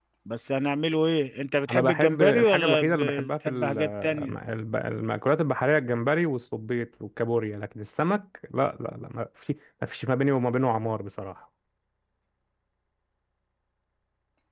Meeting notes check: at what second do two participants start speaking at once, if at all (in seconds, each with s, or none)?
1.7 s